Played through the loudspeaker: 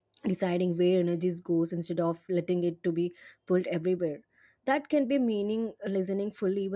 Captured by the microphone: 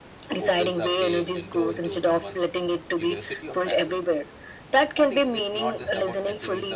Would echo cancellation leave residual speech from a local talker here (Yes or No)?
Yes